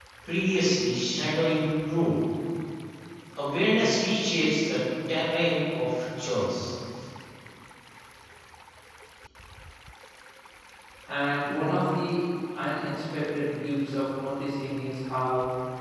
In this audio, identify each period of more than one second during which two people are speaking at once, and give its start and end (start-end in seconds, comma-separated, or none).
none